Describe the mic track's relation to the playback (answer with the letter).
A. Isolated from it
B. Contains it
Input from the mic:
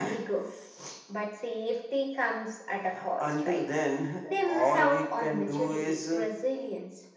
B